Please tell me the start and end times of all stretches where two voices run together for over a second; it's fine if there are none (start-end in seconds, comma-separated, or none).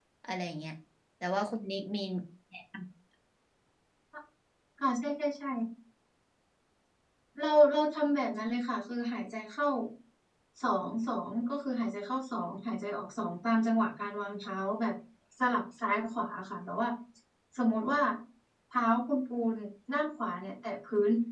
none